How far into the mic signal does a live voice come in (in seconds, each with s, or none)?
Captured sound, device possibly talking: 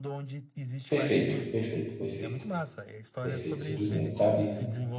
0.9 s